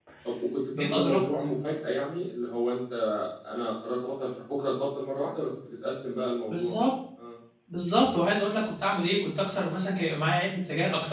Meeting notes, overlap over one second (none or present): none